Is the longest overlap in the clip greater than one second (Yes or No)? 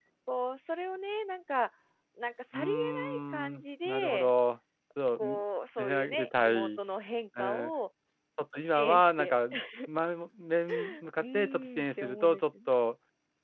Yes